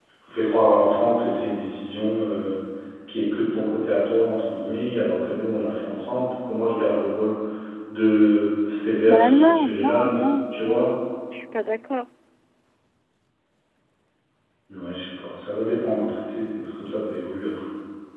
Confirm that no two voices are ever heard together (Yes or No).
No